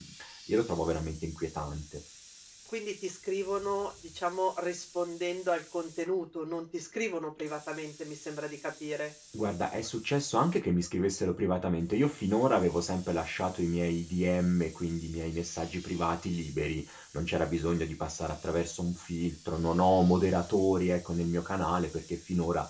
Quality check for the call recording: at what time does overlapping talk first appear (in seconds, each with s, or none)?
none